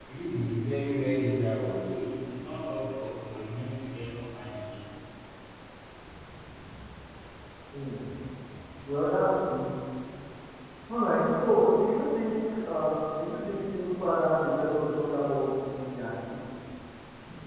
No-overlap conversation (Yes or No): Yes